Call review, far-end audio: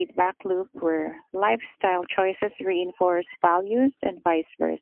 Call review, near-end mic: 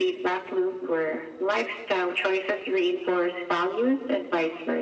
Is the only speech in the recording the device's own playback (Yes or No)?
Yes